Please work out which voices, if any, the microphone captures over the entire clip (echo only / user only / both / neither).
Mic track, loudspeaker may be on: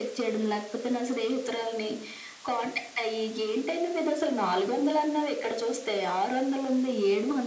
echo only